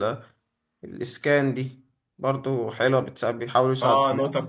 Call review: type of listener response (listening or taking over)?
taking over